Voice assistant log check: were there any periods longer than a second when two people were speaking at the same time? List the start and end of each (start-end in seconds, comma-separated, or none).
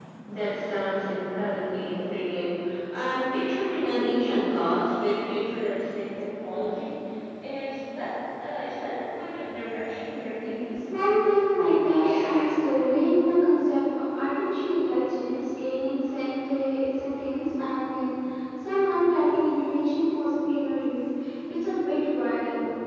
none